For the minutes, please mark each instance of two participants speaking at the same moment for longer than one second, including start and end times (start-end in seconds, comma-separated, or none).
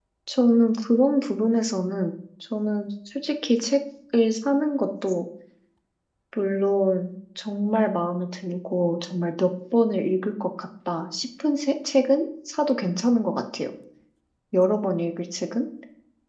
none